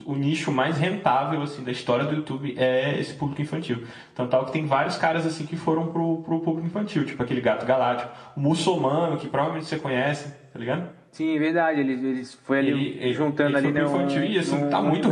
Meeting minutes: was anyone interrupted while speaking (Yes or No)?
Yes